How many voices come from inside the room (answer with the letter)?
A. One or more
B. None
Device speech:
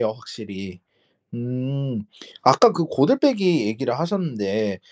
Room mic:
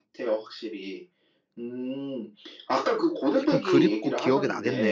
A